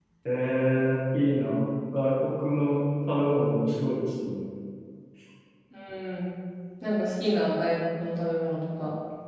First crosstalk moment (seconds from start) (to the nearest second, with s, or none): none